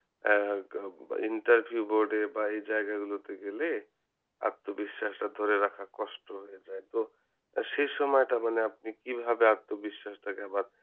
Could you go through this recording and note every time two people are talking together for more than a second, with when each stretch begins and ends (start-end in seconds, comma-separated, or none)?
none